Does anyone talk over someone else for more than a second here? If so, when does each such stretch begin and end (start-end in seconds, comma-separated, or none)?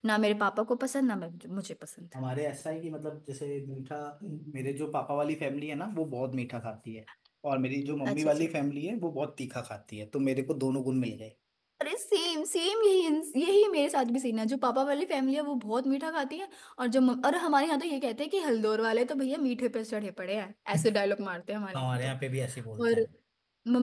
none